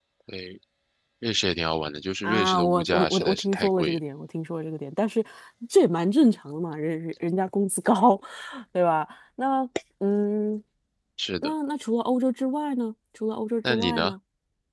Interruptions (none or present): present